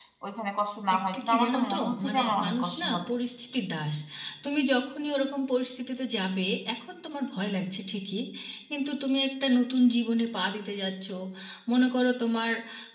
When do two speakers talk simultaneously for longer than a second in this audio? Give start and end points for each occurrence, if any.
1.0-3.1

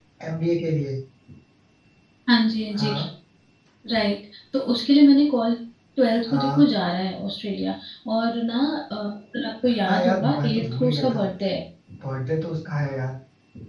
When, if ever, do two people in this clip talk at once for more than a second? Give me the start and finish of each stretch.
9.7-11.2

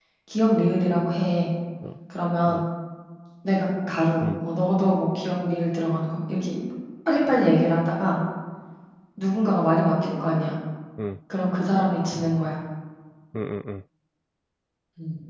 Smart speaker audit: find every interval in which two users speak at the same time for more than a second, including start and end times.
none

